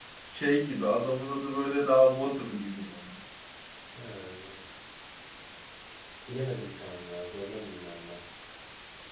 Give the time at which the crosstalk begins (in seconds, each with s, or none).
none